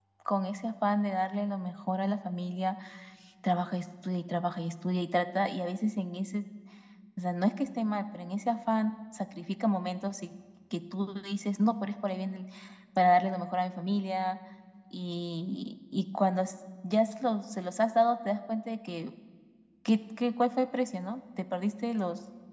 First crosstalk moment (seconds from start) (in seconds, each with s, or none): none